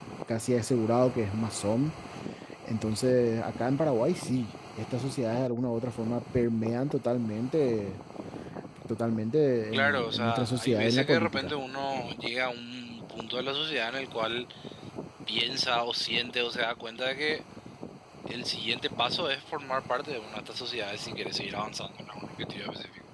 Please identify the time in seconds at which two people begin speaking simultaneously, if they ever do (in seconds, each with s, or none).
9.7 s